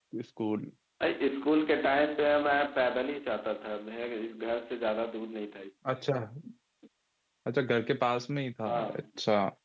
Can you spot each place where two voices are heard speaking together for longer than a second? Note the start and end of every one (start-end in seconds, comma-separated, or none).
none